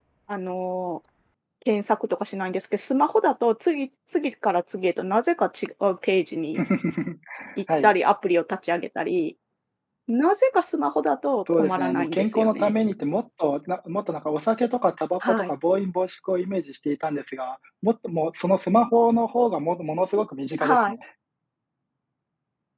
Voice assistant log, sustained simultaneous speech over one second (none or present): present